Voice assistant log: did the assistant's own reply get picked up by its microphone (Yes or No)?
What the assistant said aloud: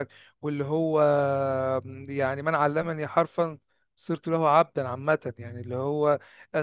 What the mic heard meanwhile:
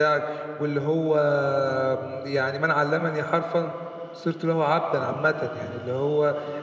Yes